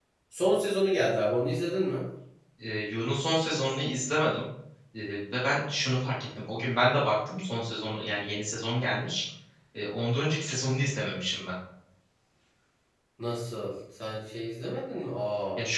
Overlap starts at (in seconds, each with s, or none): none